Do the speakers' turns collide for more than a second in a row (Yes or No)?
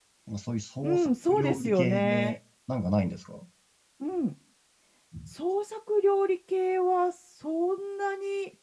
Yes